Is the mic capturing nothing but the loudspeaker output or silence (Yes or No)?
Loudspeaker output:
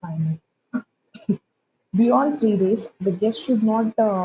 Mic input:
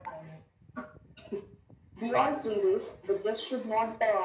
Yes